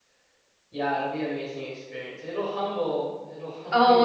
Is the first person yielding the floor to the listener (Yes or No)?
Yes